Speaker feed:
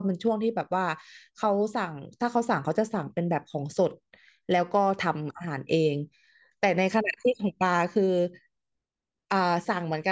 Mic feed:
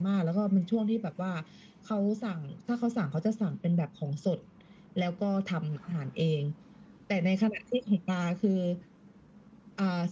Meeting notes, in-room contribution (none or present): none